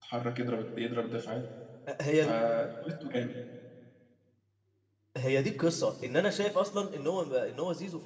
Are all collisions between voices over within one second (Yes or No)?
Yes